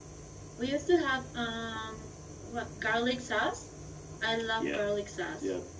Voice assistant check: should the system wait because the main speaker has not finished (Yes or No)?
No